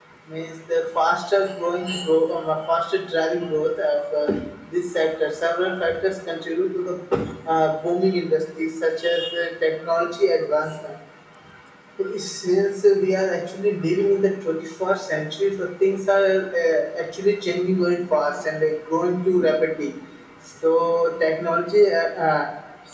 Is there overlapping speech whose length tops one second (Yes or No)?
No